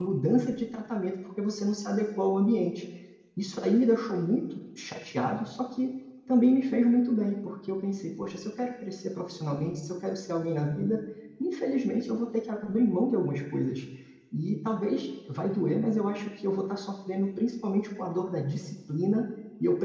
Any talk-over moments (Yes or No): No